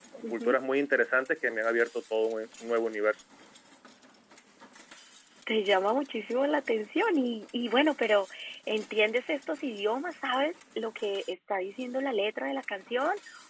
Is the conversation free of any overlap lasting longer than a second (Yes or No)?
Yes